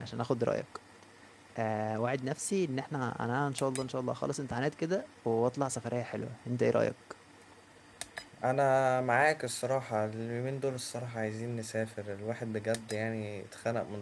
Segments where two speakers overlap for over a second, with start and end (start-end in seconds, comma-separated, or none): none